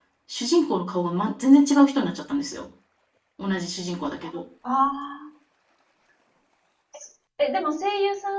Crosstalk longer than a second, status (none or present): none